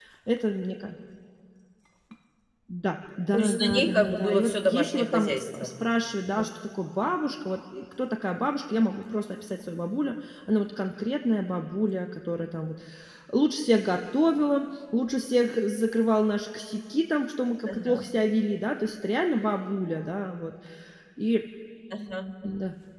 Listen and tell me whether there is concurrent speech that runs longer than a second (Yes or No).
Yes